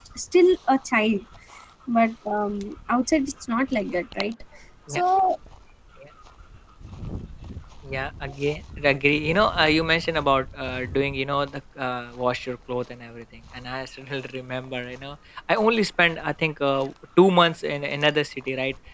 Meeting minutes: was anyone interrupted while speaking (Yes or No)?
No